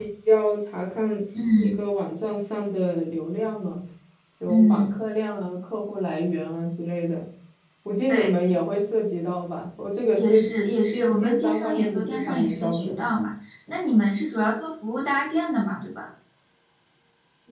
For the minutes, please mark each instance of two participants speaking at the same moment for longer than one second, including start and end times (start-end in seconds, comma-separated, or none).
10.9-13.0